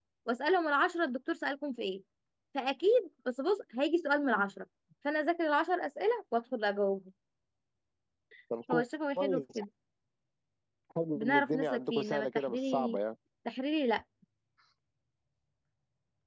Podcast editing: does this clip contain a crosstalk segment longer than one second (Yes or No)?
Yes